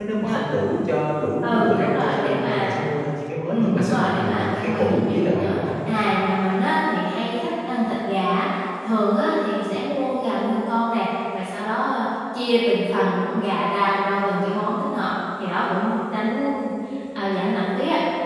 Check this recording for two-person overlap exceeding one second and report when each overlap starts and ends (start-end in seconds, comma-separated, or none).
1.4-2.7, 3.5-5.6